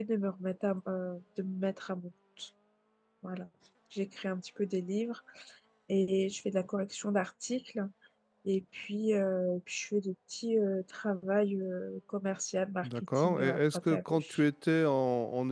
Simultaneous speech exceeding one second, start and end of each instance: 12.8-14.4

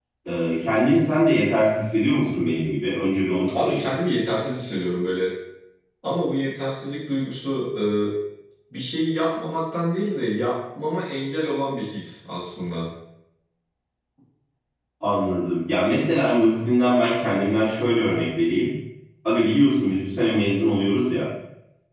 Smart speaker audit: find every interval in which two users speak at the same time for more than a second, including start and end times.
none

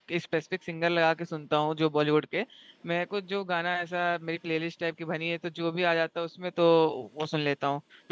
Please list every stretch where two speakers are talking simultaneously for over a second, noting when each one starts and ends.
none

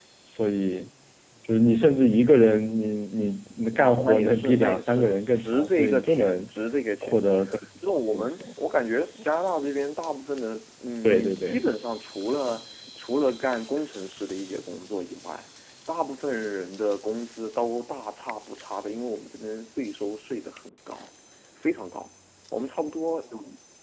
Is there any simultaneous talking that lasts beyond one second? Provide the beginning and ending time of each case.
3.7-6.4

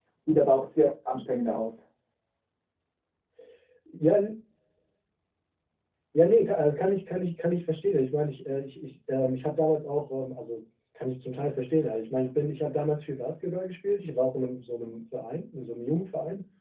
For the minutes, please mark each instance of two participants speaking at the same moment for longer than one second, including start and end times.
none

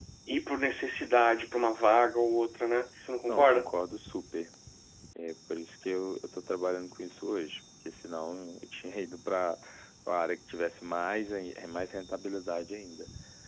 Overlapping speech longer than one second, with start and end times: none

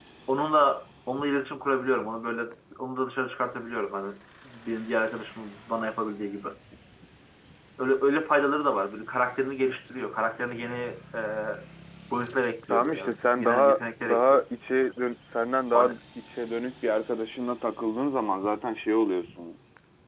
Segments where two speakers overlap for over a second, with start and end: 12.7-14.4

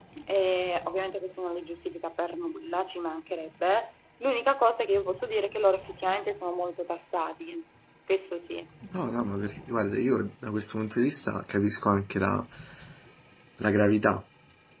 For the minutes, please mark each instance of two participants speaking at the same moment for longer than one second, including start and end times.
none

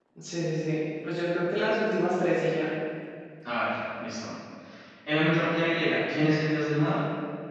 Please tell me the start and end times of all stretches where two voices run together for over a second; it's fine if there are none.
none

